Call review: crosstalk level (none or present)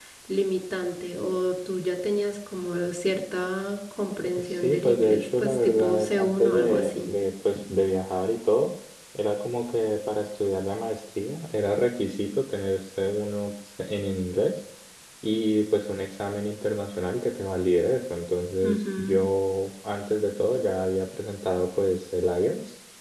present